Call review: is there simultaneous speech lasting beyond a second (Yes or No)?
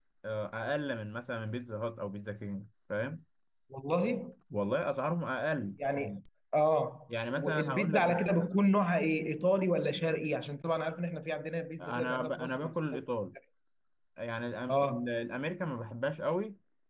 Yes